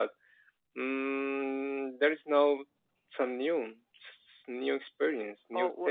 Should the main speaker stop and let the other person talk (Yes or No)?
Yes